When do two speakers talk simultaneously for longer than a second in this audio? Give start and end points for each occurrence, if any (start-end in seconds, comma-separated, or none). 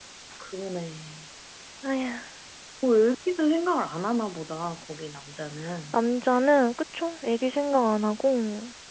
none